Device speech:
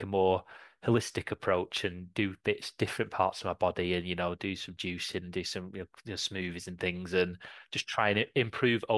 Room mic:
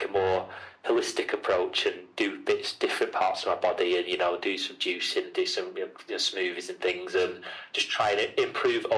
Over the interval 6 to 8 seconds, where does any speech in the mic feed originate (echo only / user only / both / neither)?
echo only